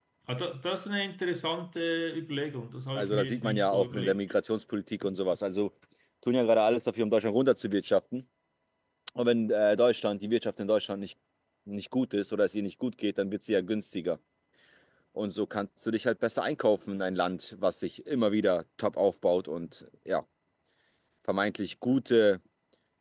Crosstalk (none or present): present